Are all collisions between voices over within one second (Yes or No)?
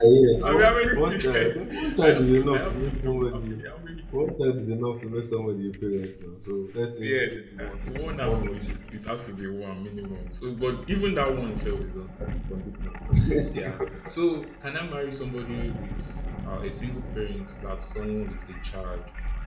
No